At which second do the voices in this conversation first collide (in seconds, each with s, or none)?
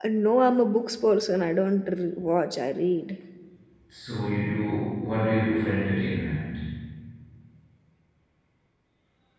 none